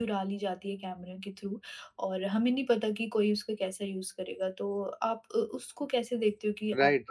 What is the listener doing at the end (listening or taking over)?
taking over